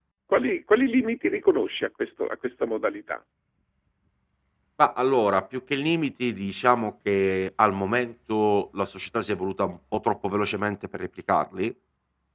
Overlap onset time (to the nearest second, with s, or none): none